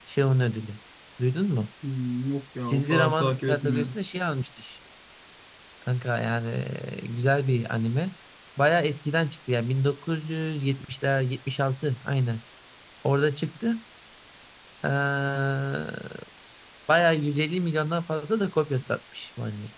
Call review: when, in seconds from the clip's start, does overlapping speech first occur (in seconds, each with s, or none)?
2.7 s